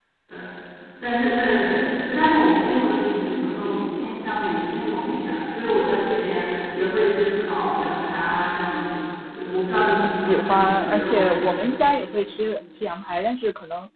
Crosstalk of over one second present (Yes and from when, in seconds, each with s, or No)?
Yes, from 10.0 s